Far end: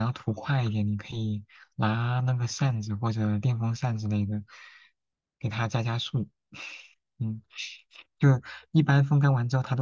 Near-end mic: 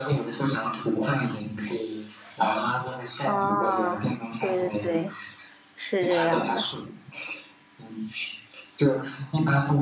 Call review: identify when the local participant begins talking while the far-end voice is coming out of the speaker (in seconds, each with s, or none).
3.2 s